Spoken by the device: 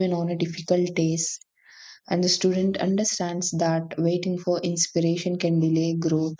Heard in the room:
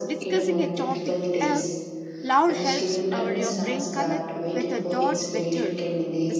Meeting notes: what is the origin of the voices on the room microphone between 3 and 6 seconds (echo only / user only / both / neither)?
both